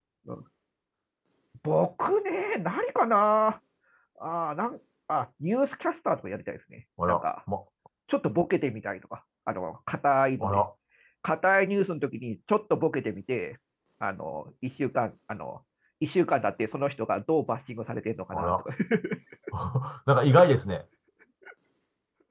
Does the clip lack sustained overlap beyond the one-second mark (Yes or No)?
Yes